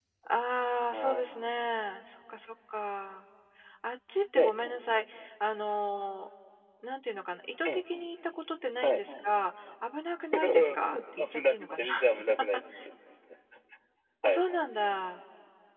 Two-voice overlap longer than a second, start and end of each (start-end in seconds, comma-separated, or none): 10.3-11.8